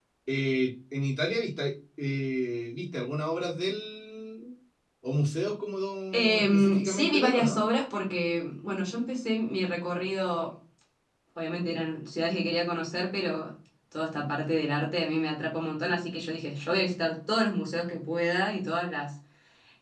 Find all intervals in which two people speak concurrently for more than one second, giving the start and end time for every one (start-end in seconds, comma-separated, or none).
6.1-7.6